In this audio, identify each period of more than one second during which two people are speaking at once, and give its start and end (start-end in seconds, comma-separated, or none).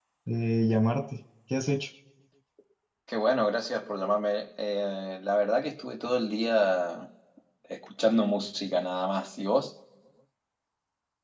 none